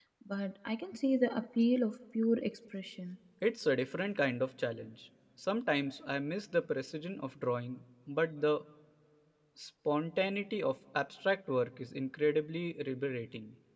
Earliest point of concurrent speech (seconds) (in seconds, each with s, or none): none